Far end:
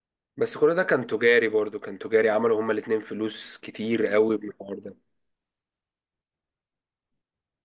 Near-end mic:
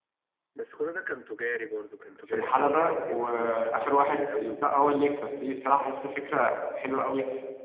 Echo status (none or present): present